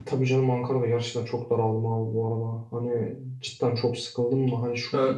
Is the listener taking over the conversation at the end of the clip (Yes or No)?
No